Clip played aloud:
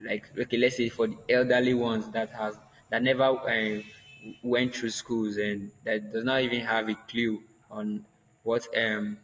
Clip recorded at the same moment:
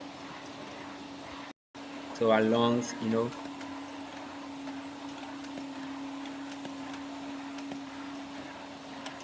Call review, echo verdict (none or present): none